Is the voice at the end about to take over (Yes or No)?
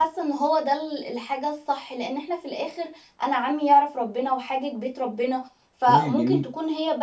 No